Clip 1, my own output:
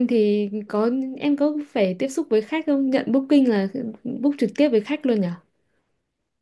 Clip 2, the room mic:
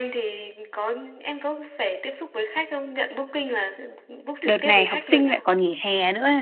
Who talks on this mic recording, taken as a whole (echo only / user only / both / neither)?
both